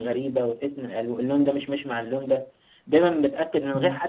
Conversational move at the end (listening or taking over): listening